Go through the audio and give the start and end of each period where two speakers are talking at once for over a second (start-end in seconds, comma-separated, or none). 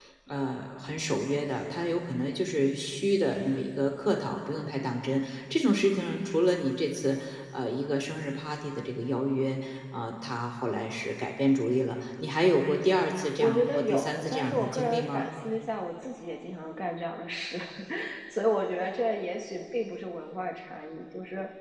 13.4-15.3